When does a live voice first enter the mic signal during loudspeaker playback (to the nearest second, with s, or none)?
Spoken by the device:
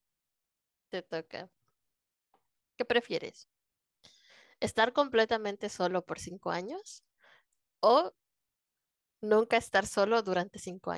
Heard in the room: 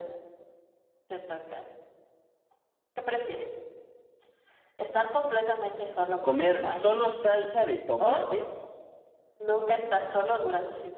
6 s